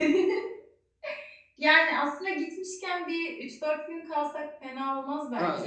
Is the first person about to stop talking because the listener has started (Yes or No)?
Yes